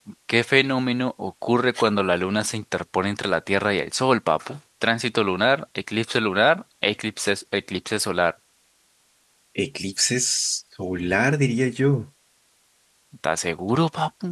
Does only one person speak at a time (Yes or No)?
Yes